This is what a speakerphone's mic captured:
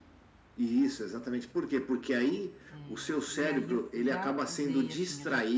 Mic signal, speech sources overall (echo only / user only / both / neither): both